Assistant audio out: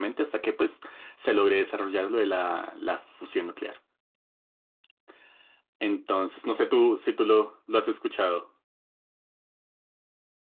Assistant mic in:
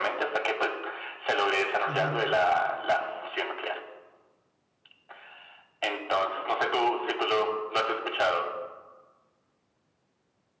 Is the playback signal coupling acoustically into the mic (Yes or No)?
Yes